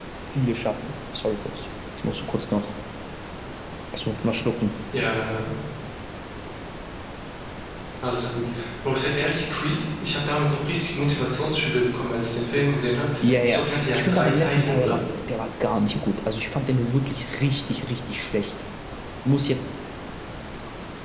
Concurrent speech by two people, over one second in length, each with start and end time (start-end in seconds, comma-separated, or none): 13.2-15.0